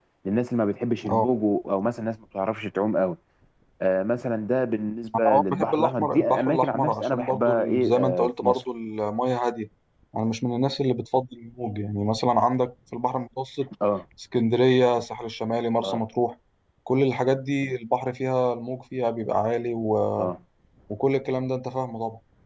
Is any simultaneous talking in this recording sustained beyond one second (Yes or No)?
Yes